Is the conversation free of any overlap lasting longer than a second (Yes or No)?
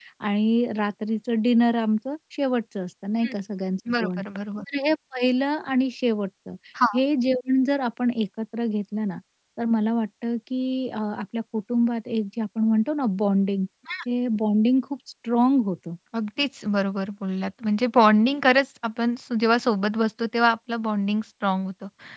Yes